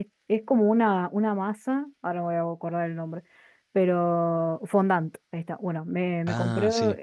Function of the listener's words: listening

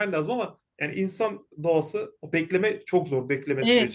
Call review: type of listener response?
taking over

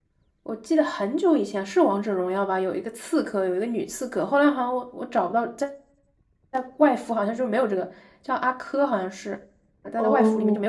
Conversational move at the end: taking over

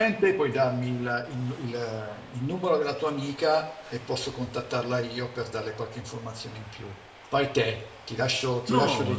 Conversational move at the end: taking over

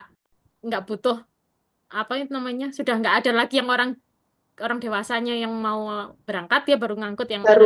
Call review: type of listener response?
taking over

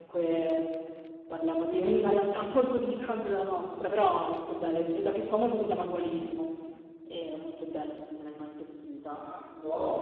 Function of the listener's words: taking over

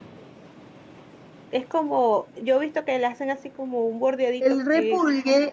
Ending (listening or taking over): taking over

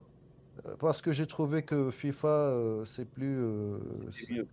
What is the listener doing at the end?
listening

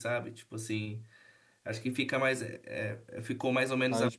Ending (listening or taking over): listening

